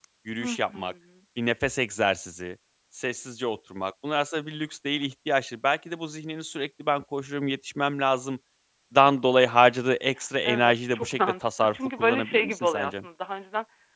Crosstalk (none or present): present